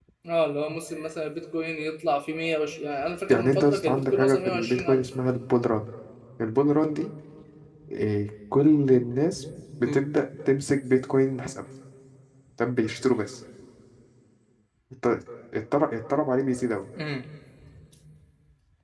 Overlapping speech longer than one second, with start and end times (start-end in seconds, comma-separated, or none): 3.3-5.0